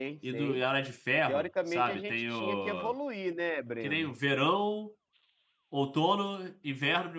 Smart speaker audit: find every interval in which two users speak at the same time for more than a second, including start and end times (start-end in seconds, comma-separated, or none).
1.3-2.9